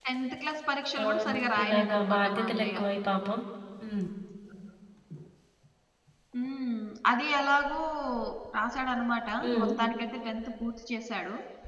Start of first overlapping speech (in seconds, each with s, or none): 1.0 s